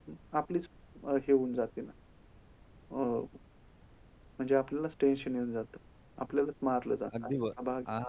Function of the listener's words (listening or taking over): taking over